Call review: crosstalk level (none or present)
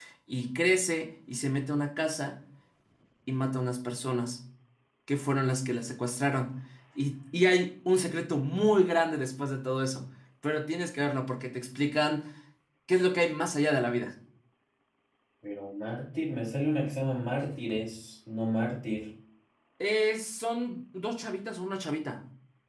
none